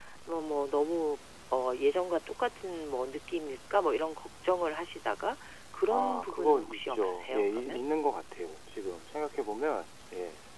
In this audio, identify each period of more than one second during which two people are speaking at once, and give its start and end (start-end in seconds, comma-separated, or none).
5.9-7.8